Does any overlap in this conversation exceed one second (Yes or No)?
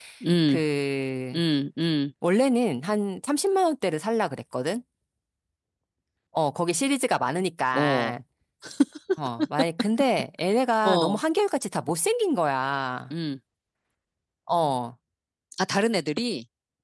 No